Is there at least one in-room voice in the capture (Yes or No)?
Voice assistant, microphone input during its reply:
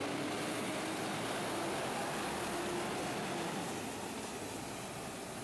No